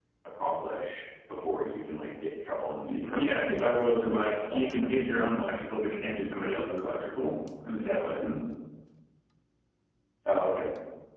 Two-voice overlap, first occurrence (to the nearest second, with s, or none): 3 s